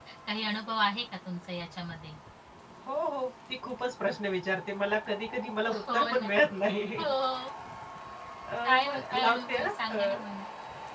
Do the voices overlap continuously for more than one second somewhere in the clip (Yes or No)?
Yes